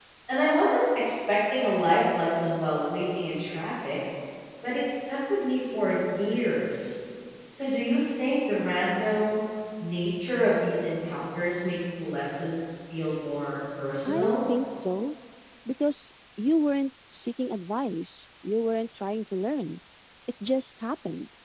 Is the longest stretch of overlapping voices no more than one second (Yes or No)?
Yes